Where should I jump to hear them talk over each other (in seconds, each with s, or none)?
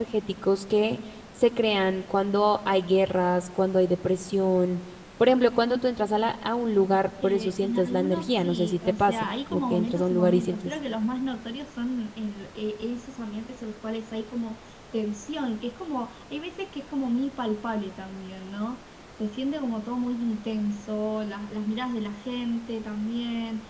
7.2 s